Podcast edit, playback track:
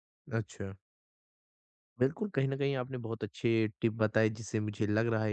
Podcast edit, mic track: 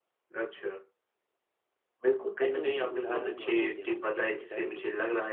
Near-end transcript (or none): आप लोगों को उधार भी बहुत देते होंगे, क्या सच्चाई है?